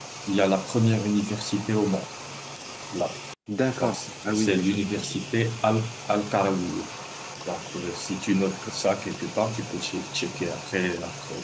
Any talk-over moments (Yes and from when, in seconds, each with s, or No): Yes, from 3.8 s